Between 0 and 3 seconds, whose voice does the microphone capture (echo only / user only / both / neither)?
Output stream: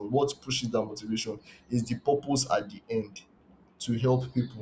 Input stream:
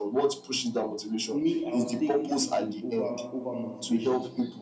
both